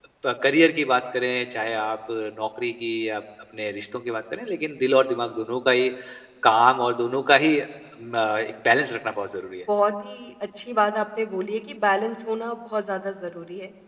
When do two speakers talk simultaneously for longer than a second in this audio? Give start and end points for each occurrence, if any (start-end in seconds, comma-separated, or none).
none